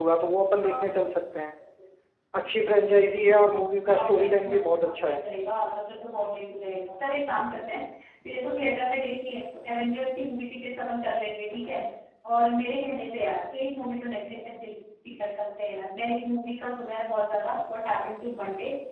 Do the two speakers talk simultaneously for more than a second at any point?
Yes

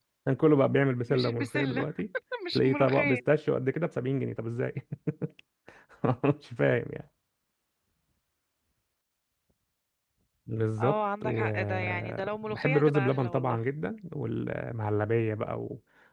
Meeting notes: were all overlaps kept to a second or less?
No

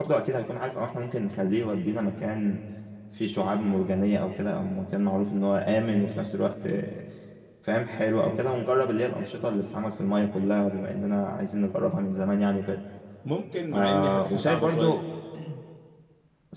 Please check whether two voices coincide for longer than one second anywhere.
Yes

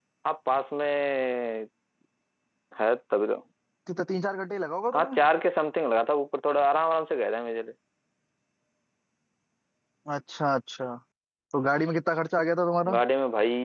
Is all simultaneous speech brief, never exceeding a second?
Yes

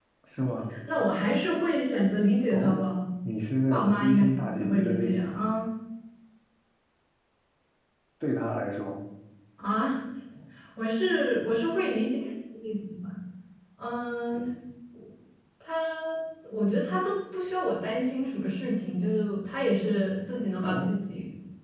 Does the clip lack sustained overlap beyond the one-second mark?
No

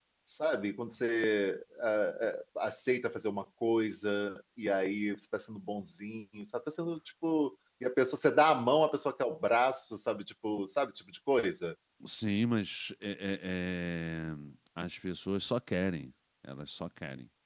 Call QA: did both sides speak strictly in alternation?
Yes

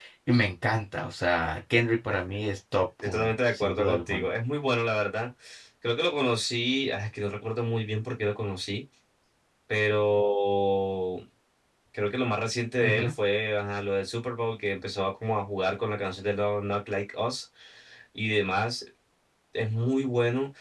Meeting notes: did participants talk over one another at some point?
Yes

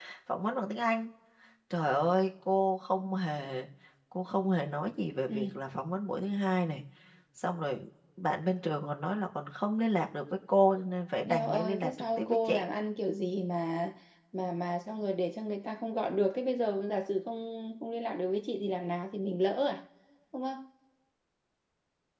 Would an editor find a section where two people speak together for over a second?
Yes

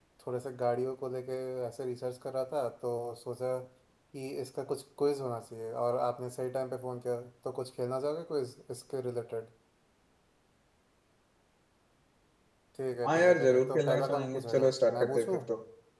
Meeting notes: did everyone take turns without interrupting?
No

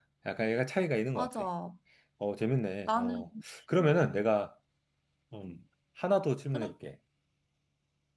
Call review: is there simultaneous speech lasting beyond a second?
No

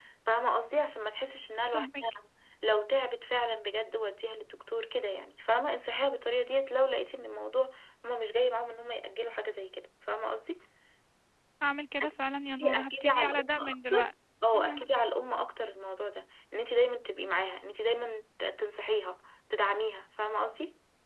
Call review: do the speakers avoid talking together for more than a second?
No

